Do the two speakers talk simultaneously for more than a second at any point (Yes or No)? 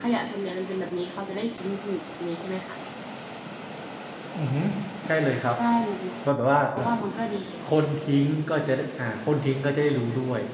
No